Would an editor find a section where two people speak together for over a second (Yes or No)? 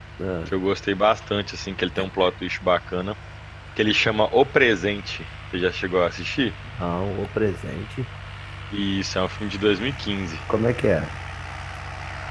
No